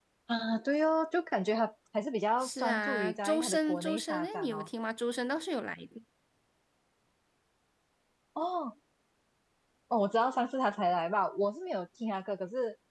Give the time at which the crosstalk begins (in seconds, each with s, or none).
2.4 s